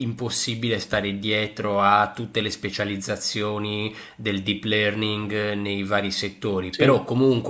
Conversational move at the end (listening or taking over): listening